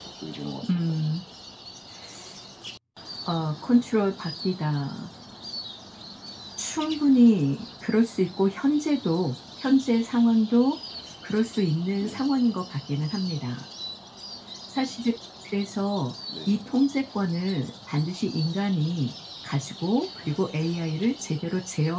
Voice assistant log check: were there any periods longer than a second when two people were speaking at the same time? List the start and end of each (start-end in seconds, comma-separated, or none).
none